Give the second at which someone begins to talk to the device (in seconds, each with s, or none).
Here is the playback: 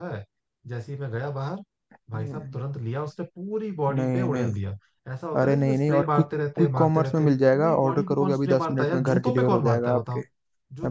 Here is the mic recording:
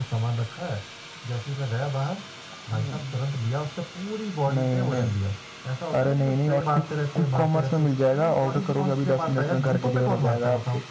none